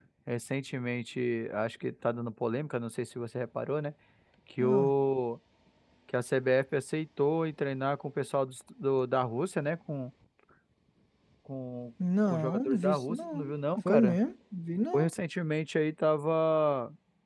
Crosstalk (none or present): present